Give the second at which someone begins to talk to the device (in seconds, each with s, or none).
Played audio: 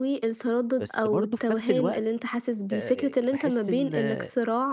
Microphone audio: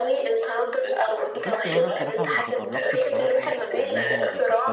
1.3 s